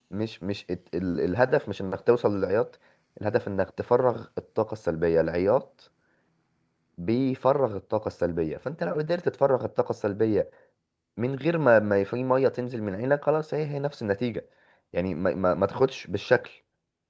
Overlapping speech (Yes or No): No